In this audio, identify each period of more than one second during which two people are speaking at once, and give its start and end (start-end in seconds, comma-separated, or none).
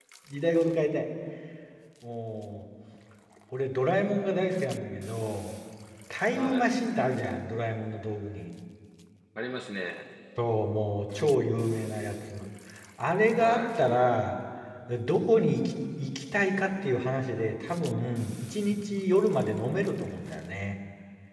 none